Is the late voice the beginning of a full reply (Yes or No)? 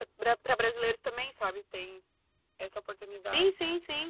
Yes